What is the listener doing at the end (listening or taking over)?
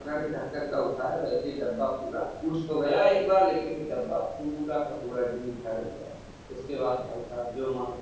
listening